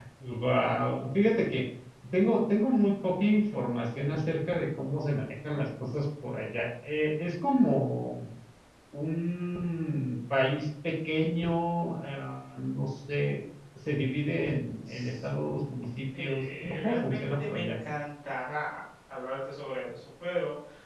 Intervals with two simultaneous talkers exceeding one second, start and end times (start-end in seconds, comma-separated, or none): 16.2-17.7